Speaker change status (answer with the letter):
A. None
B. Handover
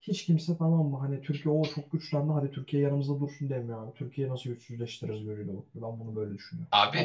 B